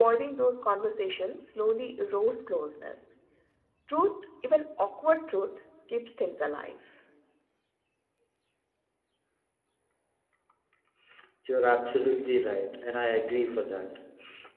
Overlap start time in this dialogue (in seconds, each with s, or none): none